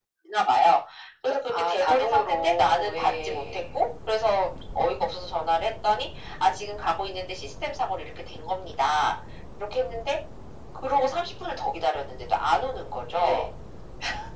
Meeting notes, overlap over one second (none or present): present